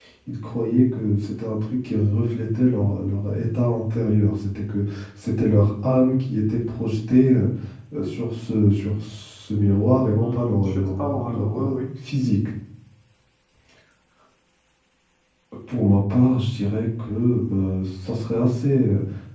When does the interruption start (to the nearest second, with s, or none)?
10 s